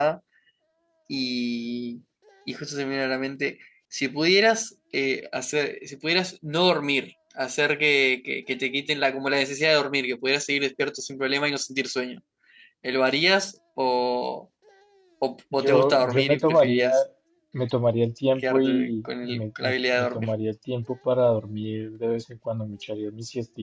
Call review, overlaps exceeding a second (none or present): present